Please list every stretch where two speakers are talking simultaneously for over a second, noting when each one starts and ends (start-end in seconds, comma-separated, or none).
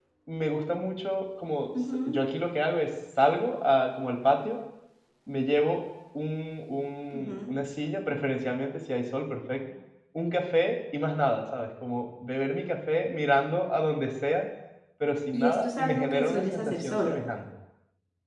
15.3-17.1